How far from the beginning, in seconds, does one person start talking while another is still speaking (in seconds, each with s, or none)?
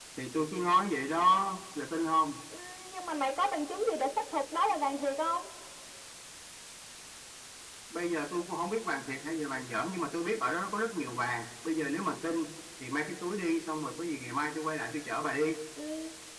none